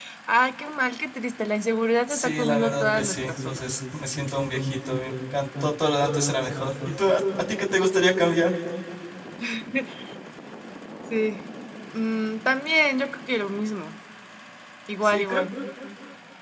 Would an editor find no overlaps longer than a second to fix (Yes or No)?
No